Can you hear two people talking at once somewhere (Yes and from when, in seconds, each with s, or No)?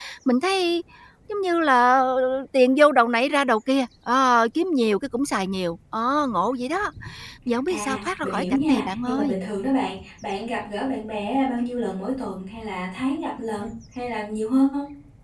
Yes, from 7.7 s